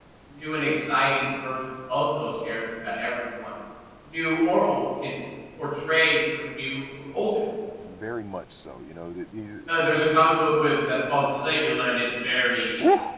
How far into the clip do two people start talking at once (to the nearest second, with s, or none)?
none